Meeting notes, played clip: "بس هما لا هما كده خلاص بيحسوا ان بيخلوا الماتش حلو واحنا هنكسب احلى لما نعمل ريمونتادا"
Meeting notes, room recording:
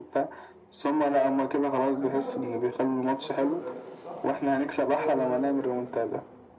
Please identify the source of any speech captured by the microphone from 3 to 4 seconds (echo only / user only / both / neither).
both